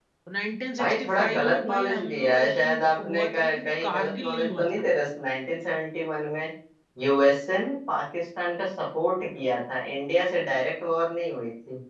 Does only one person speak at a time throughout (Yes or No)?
No